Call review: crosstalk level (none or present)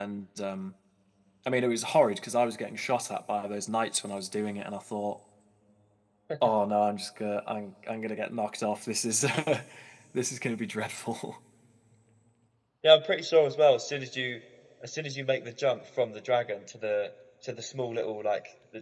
none